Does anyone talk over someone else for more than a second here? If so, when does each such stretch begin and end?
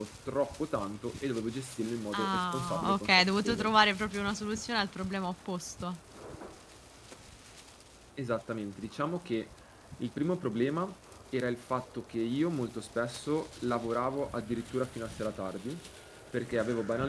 2.1-3.7

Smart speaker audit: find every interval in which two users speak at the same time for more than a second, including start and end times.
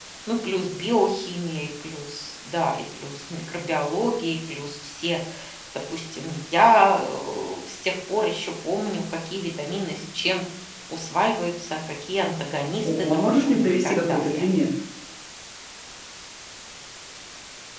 12.8-14.4

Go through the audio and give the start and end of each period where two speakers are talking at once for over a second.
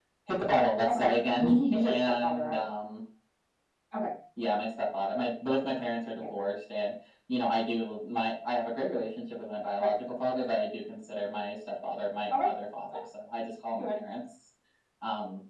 0.9-2.6

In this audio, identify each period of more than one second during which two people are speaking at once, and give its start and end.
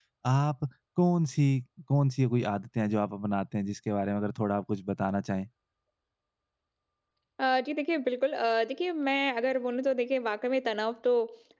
none

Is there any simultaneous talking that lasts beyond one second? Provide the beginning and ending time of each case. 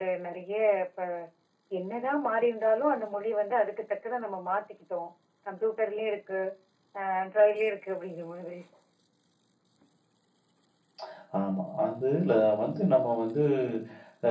none

